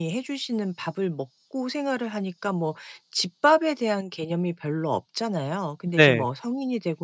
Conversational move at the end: listening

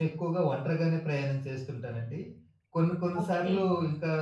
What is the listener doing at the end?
listening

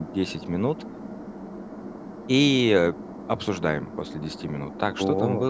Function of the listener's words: listening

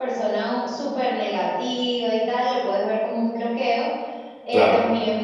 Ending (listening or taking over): listening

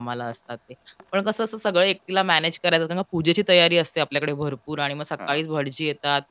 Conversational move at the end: listening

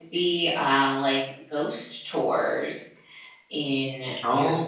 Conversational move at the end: taking over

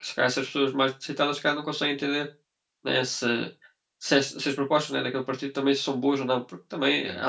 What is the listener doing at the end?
listening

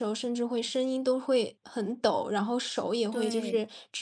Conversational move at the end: listening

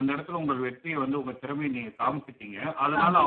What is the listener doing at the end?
listening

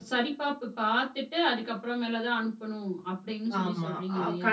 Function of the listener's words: taking over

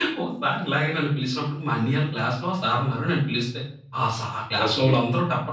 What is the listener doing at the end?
listening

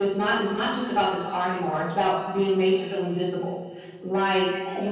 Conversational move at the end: listening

